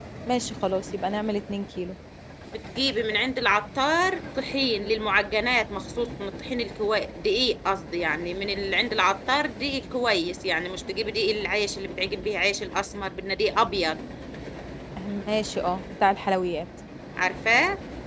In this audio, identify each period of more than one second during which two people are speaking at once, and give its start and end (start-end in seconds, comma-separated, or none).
none